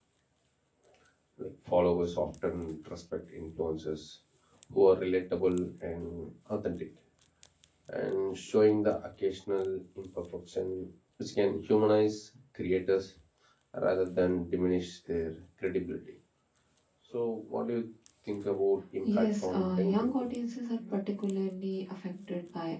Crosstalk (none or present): present